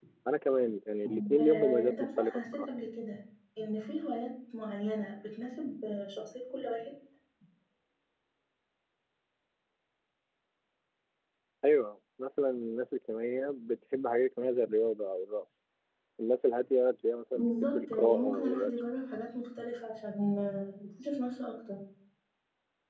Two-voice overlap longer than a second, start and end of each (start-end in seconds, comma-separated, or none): 1.0-2.6, 17.4-18.8